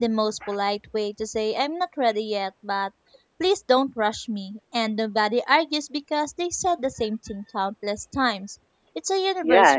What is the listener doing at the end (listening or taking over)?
taking over